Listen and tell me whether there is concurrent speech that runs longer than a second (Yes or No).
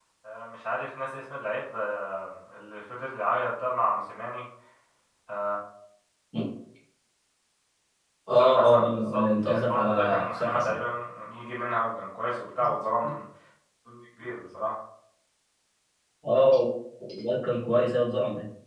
Yes